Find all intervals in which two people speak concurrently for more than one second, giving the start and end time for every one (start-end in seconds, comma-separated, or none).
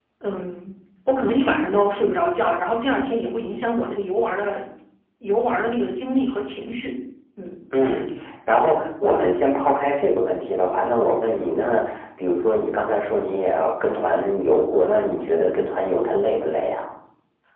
none